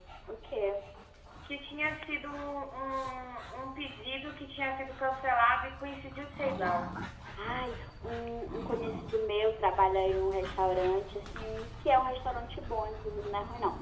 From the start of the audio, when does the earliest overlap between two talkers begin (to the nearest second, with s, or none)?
none